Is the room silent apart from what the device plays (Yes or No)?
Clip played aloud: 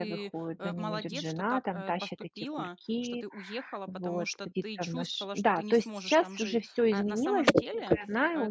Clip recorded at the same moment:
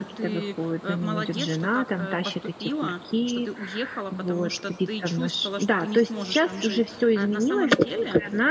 Yes